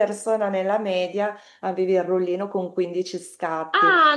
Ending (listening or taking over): taking over